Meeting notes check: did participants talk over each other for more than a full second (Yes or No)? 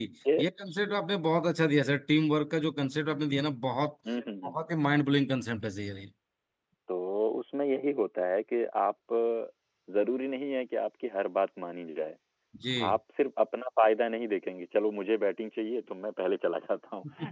No